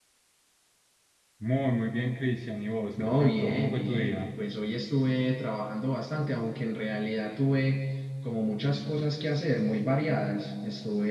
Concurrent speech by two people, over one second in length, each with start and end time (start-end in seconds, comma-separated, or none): 3.0-4.2